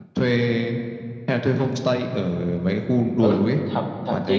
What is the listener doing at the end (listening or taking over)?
taking over